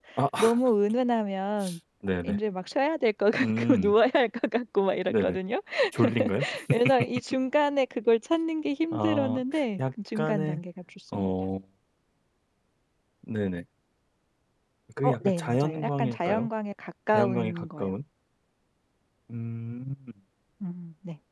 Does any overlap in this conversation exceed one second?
Yes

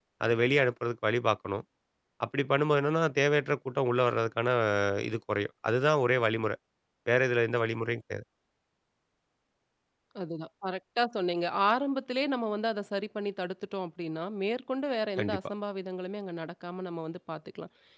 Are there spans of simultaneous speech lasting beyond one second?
No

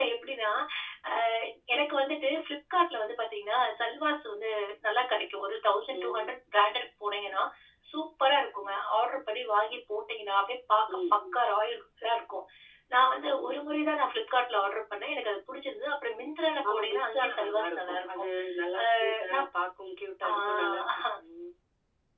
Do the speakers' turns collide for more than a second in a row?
Yes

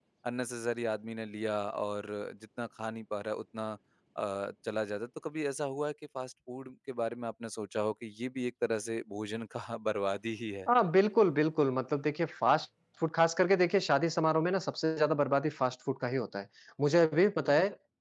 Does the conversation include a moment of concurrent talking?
No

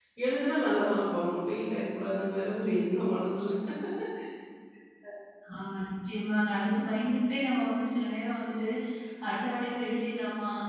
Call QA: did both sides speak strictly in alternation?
Yes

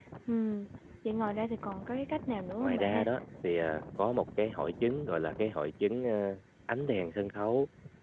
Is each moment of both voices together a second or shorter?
Yes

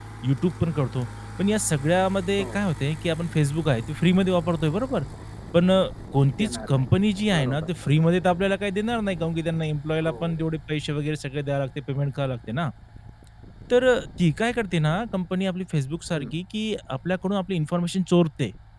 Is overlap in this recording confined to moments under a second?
Yes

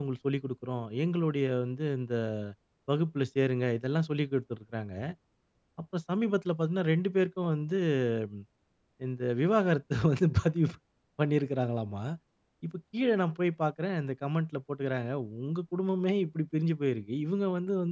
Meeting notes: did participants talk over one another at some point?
No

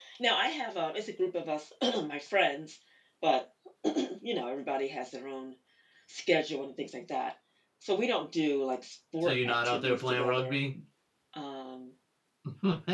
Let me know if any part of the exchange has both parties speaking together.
Yes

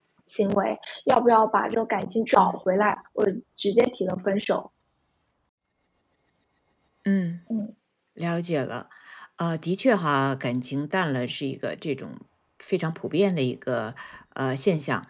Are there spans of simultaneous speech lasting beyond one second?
No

